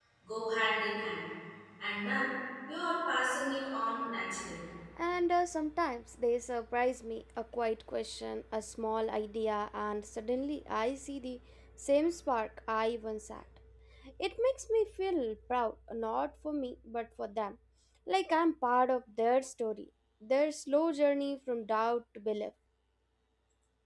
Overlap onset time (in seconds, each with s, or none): none